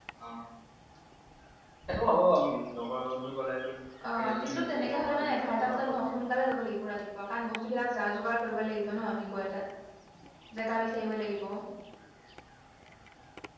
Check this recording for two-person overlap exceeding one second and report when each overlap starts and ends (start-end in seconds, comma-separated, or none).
4.2-6.2